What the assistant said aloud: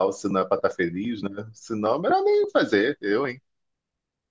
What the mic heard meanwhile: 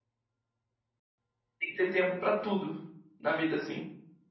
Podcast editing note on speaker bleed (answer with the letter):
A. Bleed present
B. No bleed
B